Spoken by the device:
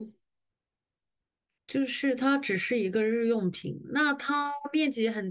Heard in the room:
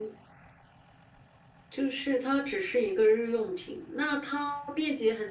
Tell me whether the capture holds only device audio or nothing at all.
Yes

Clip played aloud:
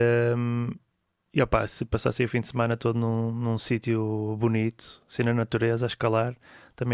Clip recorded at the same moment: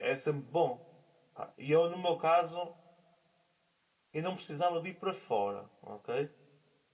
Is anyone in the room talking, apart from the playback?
Yes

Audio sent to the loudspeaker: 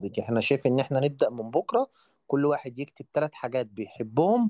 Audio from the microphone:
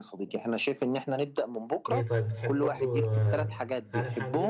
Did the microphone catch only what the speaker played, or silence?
No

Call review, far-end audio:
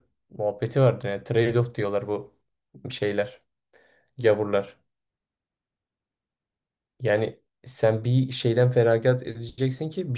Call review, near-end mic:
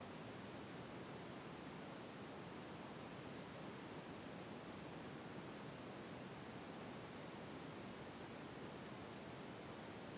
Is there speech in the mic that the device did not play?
No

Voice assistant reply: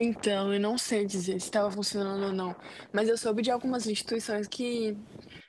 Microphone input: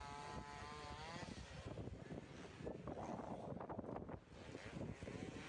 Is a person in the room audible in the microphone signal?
No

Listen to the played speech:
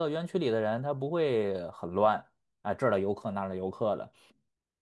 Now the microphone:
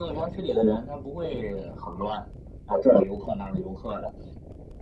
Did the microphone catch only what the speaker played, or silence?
Yes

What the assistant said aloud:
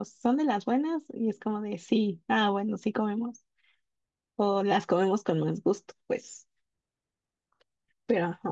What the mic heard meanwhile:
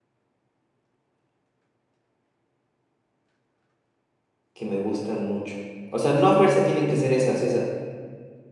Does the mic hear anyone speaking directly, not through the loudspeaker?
Yes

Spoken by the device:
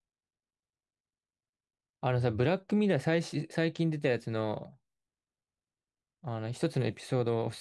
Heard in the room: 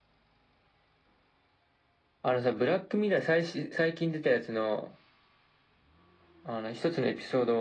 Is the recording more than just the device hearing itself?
No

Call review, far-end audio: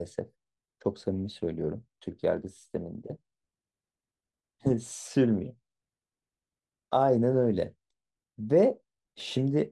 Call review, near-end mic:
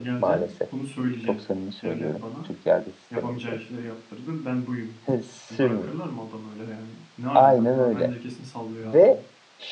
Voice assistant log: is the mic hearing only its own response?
No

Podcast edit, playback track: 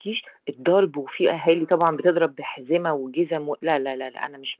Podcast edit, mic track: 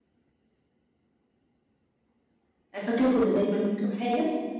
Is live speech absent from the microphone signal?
No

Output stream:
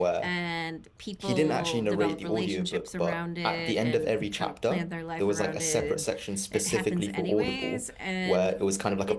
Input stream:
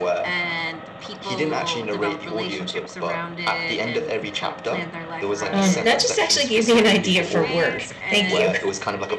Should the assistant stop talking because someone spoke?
Yes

